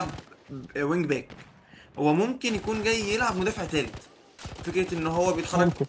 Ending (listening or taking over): listening